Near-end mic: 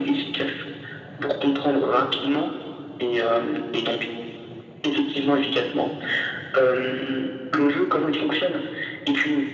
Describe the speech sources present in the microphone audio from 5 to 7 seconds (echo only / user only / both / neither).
echo only